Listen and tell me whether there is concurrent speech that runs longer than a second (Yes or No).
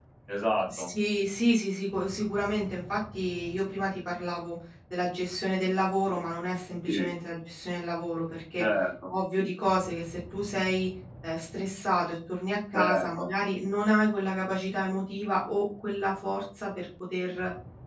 No